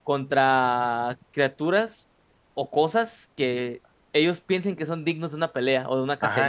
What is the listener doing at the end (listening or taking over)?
taking over